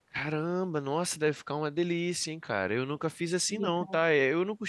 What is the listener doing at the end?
listening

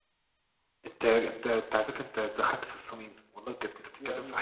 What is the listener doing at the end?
listening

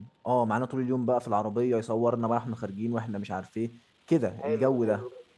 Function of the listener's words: taking over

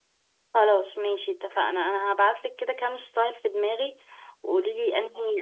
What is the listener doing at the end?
listening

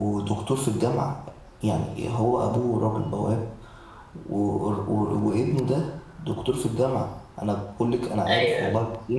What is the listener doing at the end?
listening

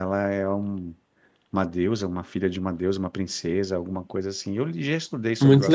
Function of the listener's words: taking over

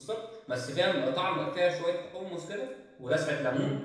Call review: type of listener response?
taking over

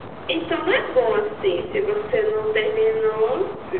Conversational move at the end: taking over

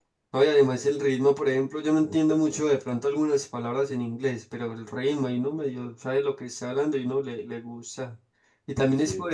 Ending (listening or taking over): listening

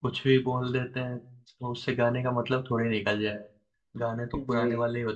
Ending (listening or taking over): listening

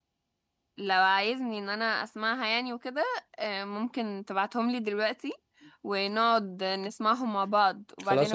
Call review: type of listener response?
taking over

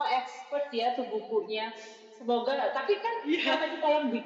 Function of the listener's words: listening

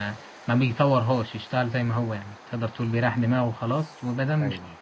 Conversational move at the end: listening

